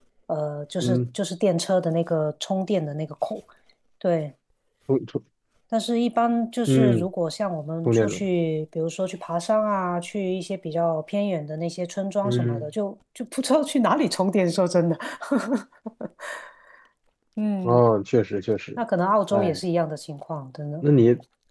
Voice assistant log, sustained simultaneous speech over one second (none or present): none